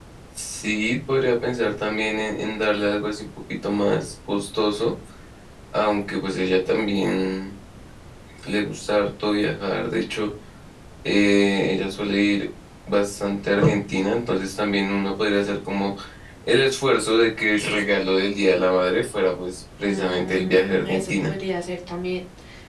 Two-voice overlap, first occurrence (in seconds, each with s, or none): 19.8 s